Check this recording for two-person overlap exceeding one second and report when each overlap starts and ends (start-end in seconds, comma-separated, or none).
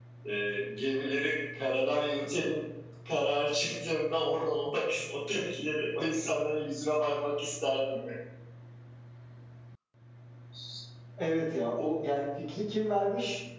none